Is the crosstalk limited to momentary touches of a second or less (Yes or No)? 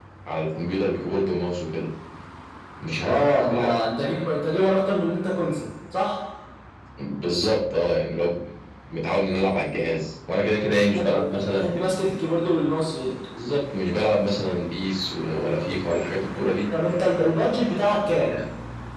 No